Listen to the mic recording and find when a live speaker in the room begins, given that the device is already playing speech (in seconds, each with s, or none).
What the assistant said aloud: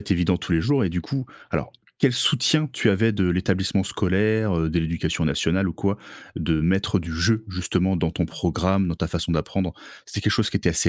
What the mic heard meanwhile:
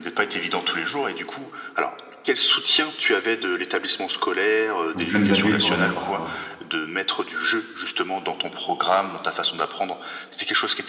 4.9 s